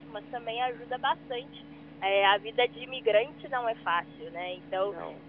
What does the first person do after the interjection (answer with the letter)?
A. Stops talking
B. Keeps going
B